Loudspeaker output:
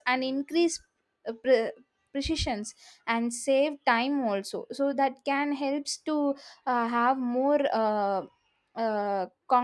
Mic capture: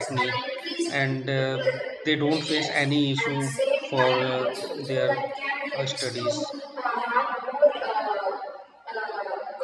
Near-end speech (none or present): present